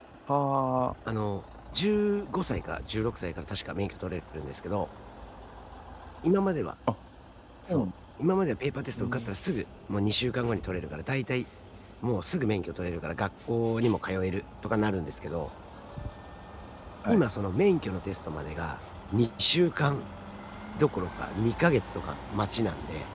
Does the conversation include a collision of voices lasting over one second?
No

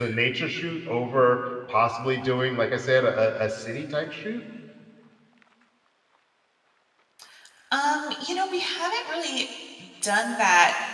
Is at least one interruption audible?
No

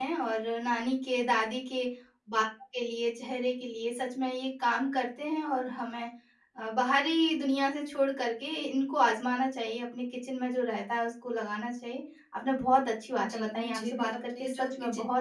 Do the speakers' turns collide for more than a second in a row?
Yes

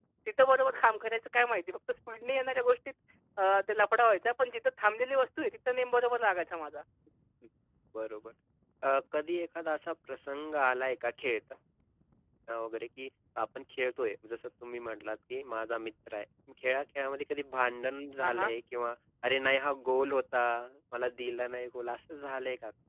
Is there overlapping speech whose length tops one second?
No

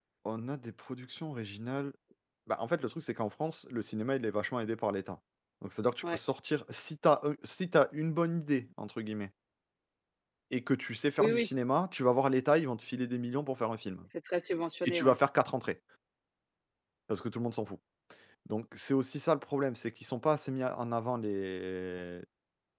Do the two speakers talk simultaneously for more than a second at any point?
No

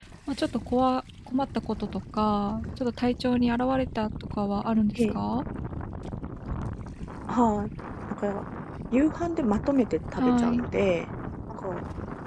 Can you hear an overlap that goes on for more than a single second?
No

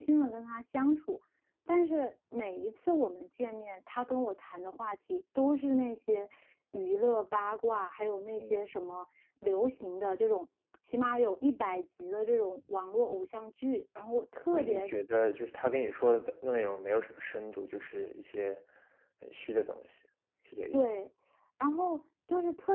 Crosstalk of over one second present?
No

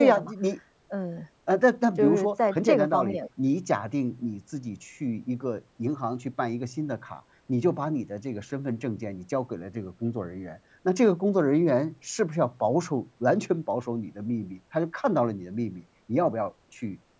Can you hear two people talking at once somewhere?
Yes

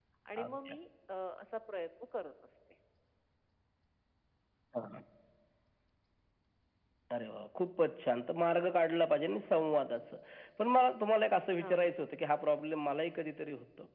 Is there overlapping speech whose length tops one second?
No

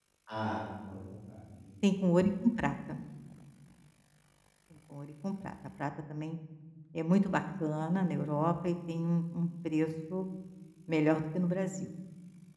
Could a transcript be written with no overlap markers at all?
Yes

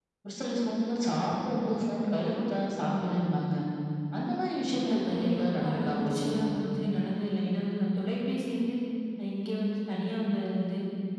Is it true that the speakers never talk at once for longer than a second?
No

